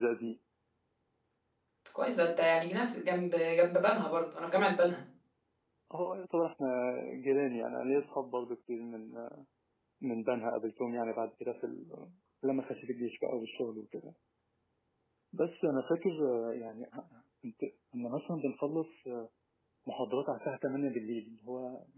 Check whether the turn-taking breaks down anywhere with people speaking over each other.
No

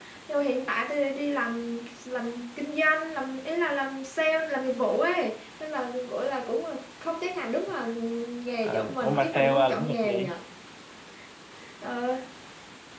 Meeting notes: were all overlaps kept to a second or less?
No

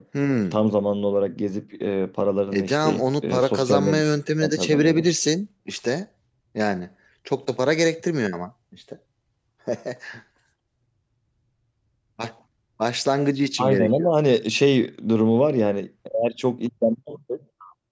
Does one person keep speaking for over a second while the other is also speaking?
Yes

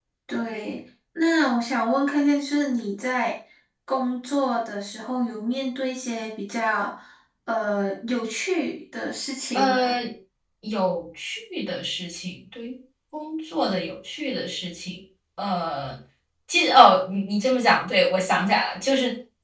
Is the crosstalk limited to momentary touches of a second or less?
Yes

